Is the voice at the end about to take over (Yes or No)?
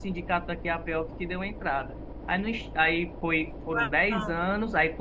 No